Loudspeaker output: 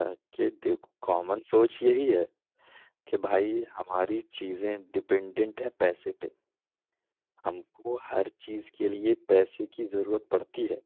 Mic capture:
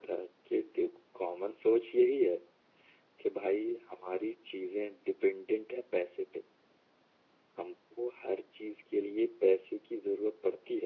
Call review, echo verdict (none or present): present